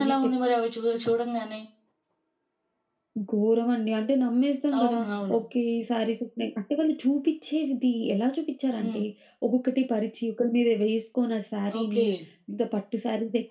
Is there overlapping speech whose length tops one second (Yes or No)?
No